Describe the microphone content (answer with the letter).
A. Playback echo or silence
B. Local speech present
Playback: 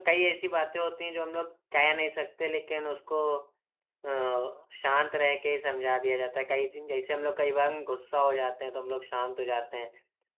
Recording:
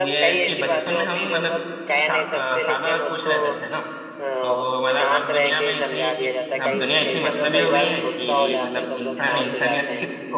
B